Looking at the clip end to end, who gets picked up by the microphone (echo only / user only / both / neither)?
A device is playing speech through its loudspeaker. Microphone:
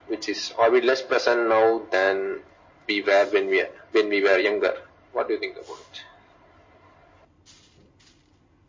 echo only